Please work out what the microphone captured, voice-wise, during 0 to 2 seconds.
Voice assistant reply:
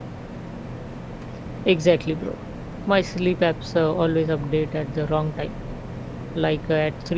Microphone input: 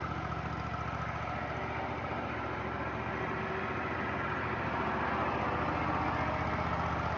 neither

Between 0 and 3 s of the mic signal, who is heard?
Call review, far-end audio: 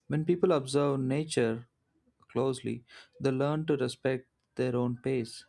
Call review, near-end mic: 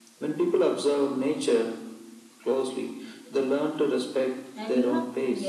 echo only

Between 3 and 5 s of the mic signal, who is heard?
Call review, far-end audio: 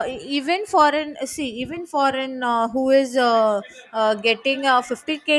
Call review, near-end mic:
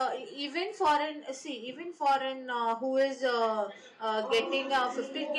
both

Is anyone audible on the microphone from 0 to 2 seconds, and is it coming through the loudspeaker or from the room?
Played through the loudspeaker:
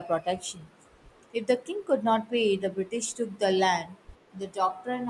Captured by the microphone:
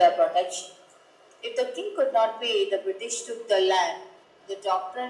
echo only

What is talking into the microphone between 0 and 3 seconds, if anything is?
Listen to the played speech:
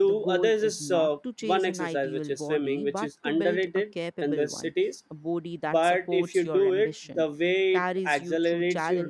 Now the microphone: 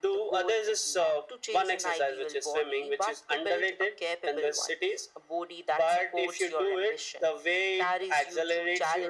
echo only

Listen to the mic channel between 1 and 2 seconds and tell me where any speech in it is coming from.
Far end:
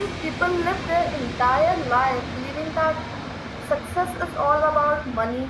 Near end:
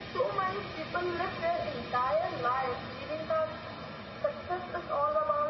echo only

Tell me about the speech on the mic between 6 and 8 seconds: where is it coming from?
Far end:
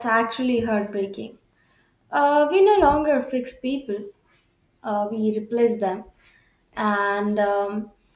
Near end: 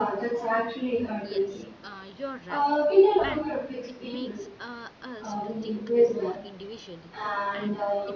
both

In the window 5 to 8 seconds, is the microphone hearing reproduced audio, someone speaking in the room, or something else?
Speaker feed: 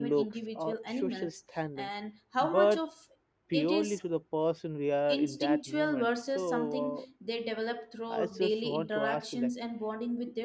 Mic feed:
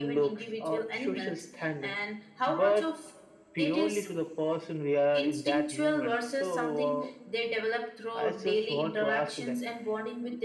echo only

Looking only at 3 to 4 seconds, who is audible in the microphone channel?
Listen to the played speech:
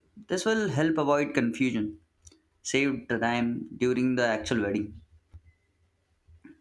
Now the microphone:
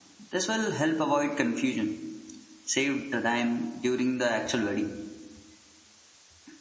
echo only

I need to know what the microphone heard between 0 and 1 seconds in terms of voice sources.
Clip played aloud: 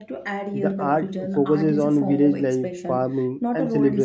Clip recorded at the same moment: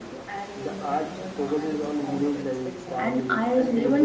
echo only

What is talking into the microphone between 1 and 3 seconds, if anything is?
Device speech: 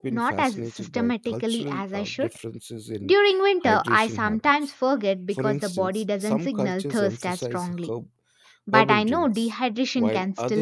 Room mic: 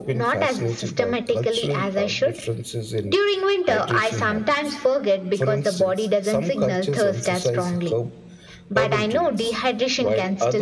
echo only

